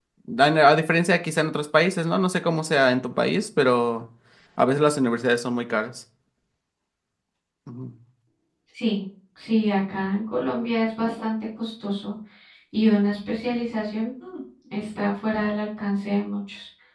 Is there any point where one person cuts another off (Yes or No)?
No